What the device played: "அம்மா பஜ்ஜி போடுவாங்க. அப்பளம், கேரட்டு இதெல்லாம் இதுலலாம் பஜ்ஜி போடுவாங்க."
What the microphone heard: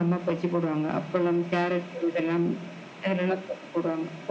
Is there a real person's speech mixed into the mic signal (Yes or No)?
No